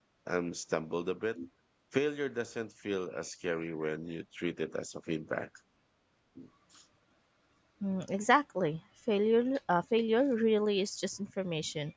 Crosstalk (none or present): none